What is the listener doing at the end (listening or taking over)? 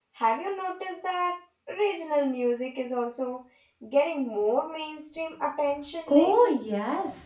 taking over